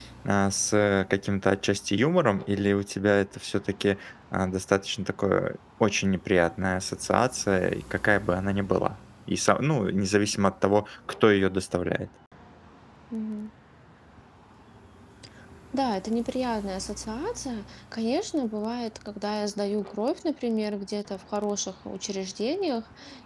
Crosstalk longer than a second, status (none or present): none